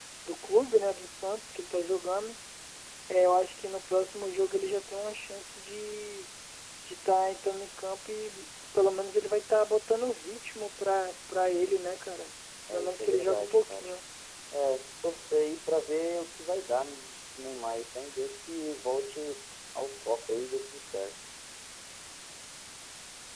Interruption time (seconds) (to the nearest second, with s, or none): 13 s